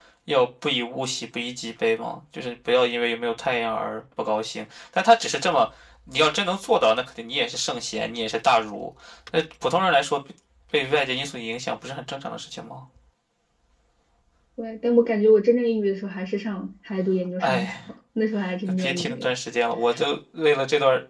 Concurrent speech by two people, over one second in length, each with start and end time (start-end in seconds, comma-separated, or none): none